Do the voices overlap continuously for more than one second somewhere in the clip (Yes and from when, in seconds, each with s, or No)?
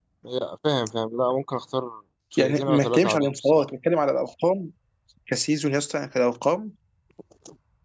Yes, from 2.3 s